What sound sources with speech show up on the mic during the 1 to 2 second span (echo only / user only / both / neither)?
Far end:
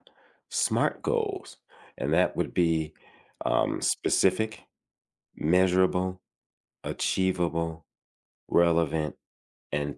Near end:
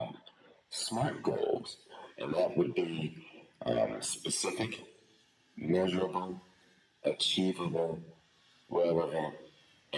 echo only